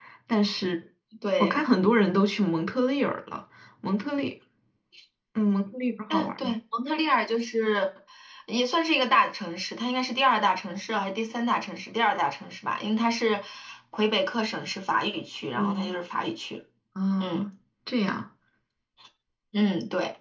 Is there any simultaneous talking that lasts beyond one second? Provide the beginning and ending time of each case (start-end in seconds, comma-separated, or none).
none